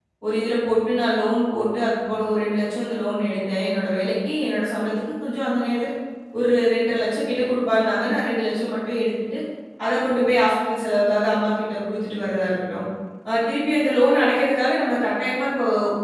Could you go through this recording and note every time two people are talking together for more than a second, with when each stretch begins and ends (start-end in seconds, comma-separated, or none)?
none